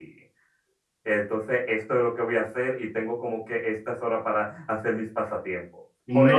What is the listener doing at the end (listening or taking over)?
listening